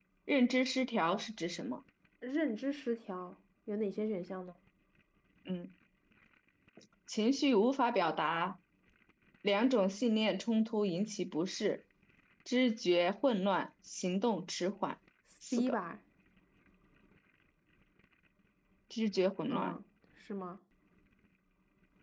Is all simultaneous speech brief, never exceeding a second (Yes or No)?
Yes